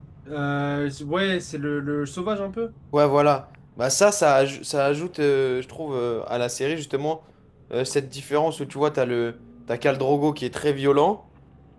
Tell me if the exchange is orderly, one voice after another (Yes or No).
Yes